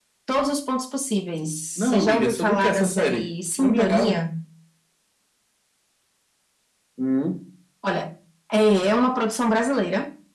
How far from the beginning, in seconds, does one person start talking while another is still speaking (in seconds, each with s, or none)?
1.8 s